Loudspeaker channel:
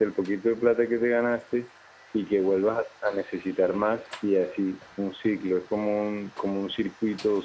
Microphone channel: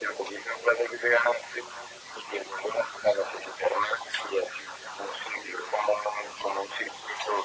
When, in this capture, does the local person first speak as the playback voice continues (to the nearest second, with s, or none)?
none